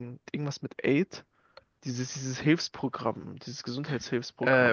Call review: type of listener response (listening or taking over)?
taking over